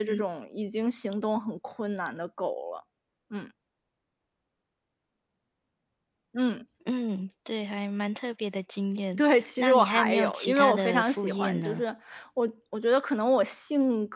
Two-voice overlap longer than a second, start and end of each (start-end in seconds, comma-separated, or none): 9.2-11.8